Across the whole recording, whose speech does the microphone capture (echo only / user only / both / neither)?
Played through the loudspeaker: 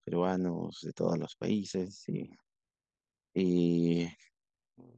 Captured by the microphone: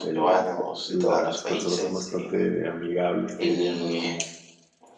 both